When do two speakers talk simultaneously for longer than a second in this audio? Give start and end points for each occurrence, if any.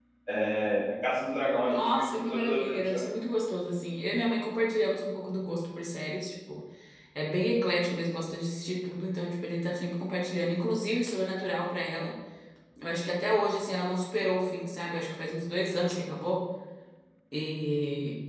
1.6-3.1

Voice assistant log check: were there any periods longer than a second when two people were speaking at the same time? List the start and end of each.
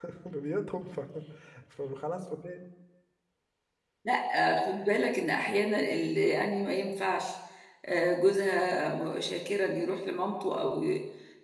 none

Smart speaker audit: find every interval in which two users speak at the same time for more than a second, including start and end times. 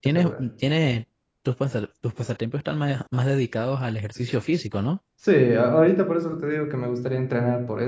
none

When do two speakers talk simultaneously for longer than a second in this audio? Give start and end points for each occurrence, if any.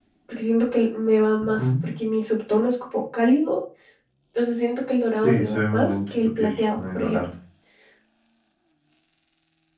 5.2-7.2

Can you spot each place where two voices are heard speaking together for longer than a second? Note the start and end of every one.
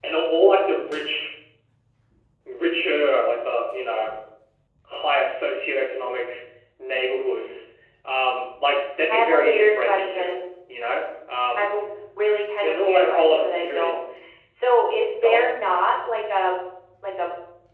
9.1-10.3, 12.6-14.0

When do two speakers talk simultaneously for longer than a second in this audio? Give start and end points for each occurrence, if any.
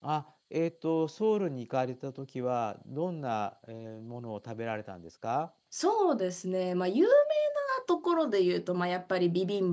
none

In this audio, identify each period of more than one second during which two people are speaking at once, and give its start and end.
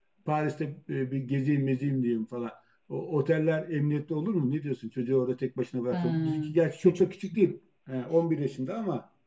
5.9-7.3

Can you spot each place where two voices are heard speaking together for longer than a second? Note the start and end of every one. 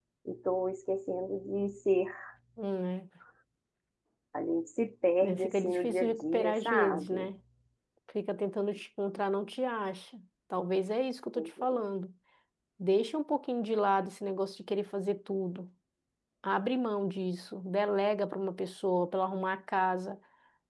5.2-7.3

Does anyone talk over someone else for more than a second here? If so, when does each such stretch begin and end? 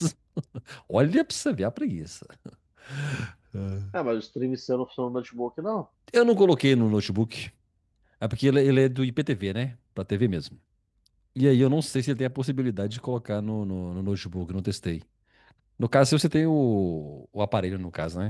none

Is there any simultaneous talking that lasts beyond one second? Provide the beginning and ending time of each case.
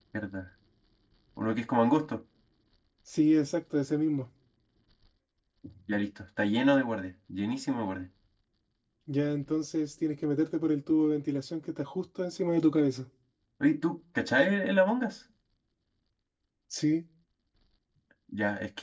none

